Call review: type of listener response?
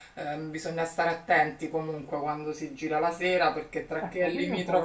taking over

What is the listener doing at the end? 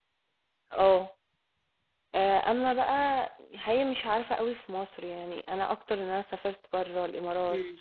listening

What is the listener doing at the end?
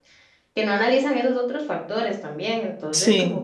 listening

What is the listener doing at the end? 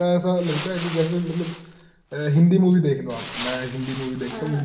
listening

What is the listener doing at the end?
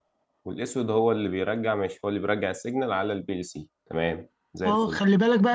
taking over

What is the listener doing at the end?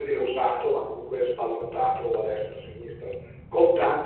listening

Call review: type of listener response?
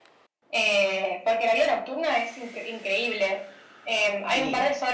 listening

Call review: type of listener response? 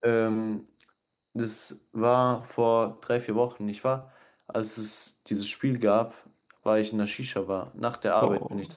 listening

